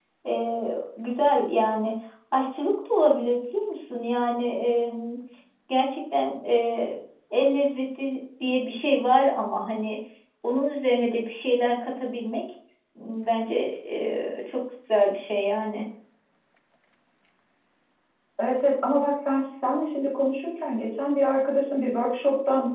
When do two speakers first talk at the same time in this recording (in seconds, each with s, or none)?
none